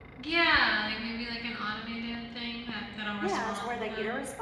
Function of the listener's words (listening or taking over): taking over